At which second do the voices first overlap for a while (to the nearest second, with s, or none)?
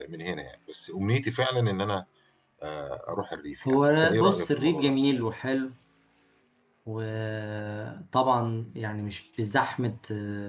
4 s